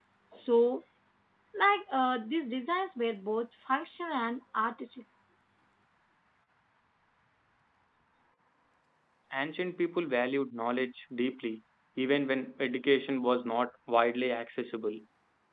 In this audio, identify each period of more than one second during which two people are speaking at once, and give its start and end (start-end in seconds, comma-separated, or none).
none